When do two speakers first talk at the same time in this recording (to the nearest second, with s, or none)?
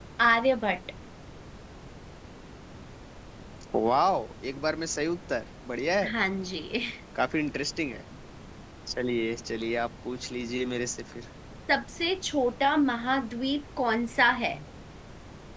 none